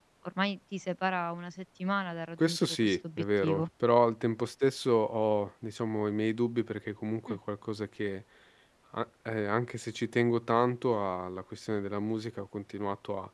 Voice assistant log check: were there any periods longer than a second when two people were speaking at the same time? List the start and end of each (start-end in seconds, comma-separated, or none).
2.4-3.7